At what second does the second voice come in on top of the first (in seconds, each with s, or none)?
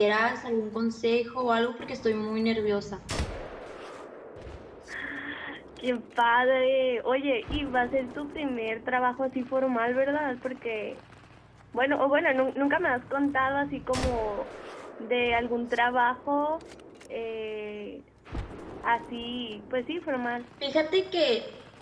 none